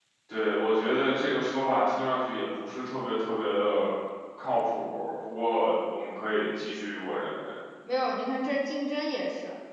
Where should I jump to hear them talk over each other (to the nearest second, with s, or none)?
none